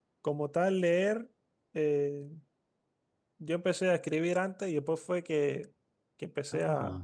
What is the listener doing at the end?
listening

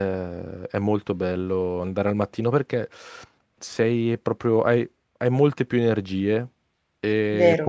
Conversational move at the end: listening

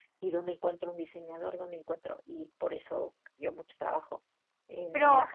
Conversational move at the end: taking over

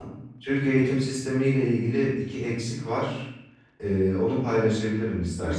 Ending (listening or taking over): taking over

